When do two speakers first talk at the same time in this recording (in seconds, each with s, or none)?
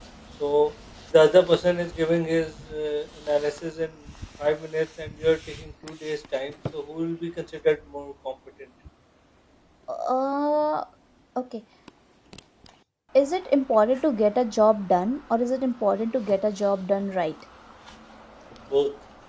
none